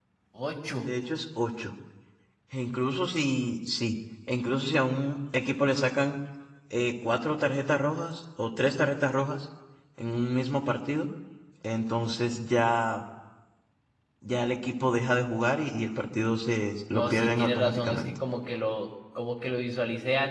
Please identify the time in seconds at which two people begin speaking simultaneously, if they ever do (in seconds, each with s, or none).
16.9 s